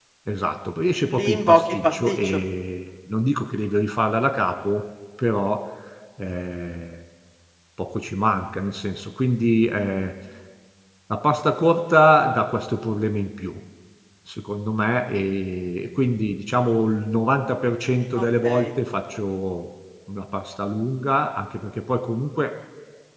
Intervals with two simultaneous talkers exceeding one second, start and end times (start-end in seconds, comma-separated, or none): 1.1-2.4